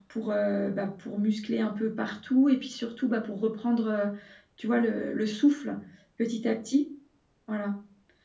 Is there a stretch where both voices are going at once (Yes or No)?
No